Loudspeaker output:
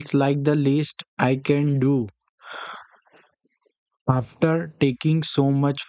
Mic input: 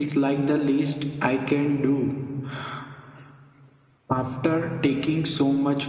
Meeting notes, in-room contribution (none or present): none